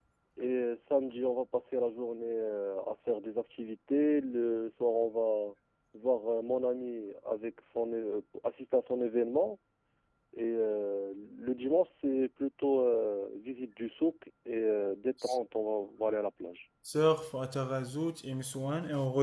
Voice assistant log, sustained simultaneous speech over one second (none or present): none